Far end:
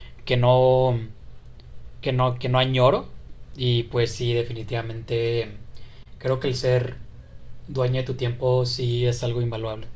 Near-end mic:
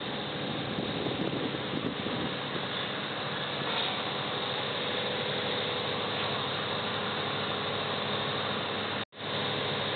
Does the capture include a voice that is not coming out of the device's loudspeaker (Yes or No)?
No